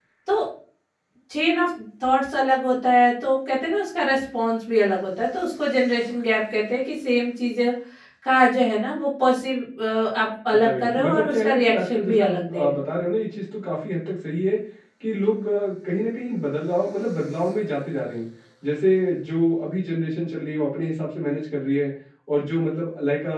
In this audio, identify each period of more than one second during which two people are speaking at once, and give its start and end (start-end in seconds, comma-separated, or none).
10.5-12.8